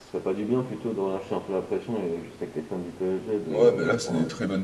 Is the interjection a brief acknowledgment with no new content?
No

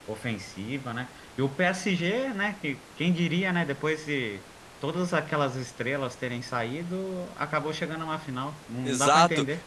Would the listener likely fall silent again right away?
No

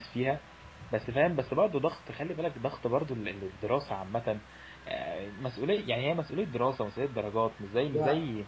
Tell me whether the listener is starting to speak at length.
No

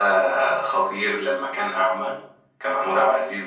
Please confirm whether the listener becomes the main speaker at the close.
No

